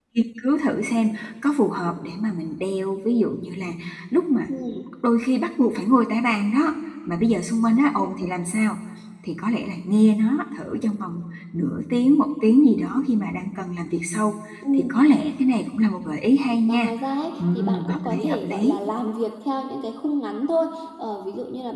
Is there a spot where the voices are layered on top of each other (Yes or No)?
Yes